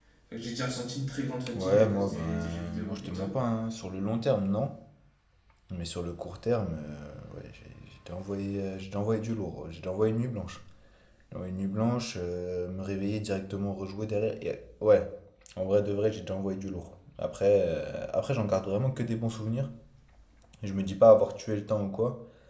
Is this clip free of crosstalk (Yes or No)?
No